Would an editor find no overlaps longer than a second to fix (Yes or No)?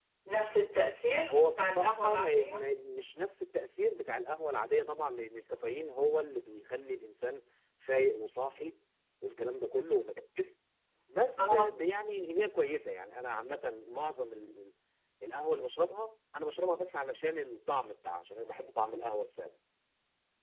No